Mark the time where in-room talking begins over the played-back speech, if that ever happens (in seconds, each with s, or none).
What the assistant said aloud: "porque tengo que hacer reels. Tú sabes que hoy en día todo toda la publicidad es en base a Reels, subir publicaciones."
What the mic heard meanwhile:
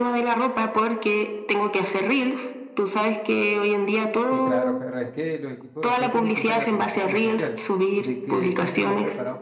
4.2 s